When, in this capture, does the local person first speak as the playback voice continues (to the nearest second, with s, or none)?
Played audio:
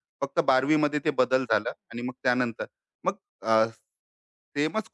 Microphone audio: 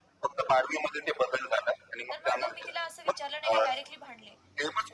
2 s